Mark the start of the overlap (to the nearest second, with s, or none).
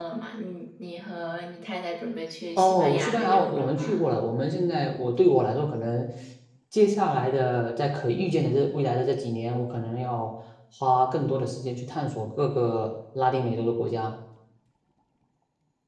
3 s